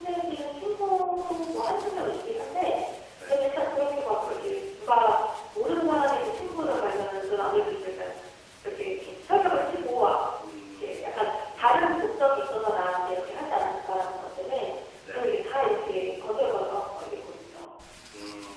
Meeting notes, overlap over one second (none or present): none